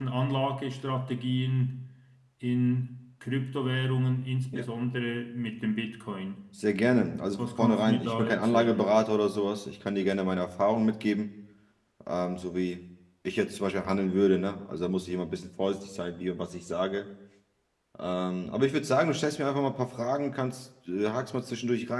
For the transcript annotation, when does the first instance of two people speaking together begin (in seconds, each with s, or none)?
7.4 s